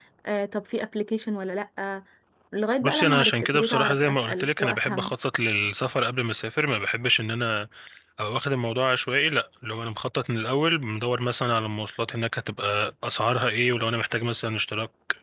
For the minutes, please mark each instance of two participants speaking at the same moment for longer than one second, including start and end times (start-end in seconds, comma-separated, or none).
2.8-5.2